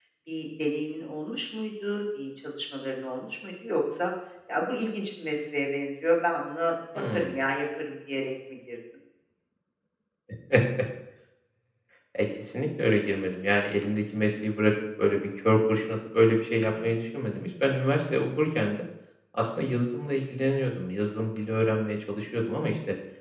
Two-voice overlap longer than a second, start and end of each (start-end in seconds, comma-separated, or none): none